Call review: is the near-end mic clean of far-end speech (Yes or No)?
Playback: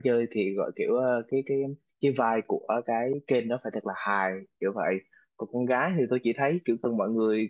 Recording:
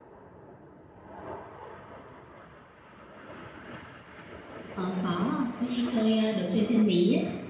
Yes